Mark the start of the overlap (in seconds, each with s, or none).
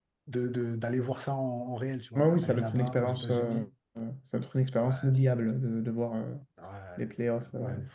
2.1 s